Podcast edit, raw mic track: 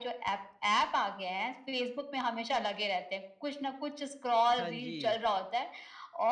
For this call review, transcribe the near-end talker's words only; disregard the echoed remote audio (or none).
हाँ जी।